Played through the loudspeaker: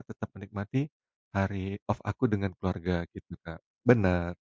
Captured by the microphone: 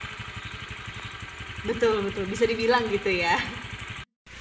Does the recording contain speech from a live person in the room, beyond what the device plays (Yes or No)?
Yes